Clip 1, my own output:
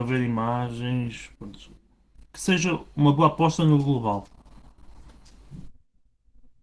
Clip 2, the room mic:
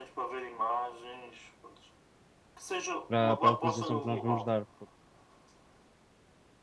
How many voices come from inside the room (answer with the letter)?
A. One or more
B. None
A